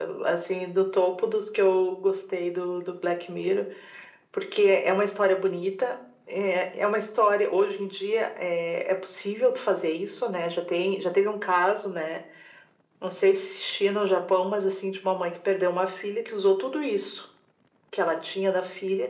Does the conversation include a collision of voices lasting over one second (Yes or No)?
No